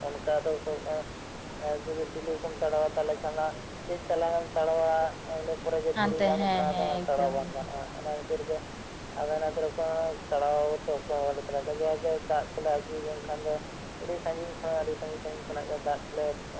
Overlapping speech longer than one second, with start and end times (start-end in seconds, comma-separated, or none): 6.0-7.7